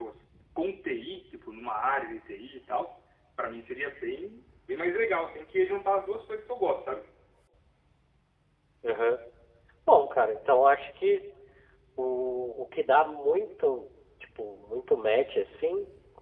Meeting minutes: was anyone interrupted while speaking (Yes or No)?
No